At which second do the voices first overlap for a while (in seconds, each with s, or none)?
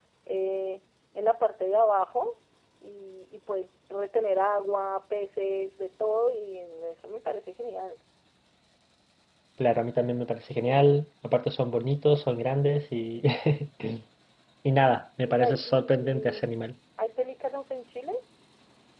15.2 s